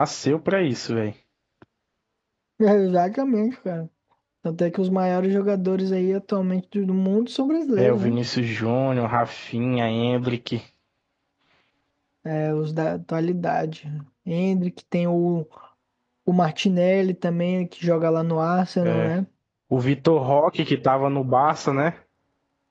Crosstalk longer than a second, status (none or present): none